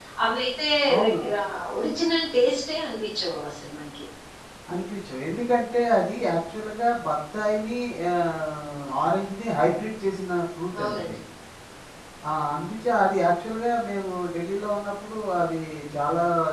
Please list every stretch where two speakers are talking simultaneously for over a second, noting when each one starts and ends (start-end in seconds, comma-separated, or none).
none